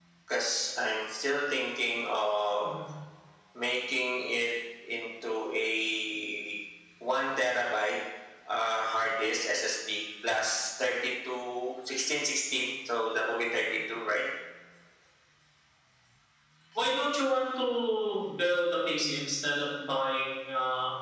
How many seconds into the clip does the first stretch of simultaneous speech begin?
none

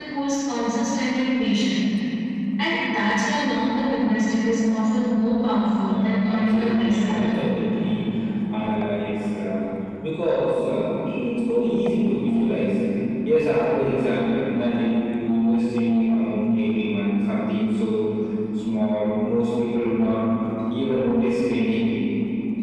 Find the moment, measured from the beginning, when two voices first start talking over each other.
5.9 s

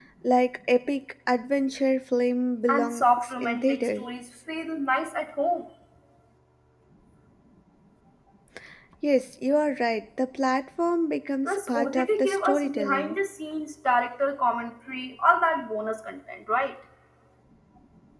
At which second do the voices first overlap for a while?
2.7 s

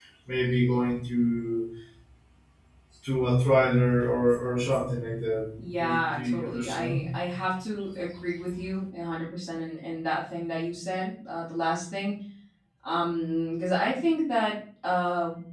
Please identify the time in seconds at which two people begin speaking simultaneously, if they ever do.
5.6 s

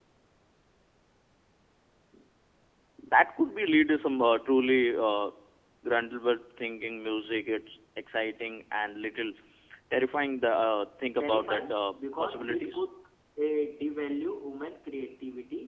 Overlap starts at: 11.2 s

